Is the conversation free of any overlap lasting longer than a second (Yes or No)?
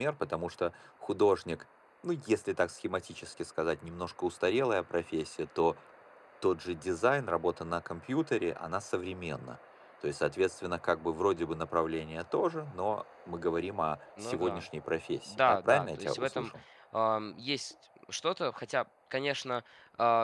No